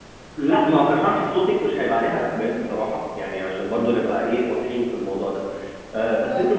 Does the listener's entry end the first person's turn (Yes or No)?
No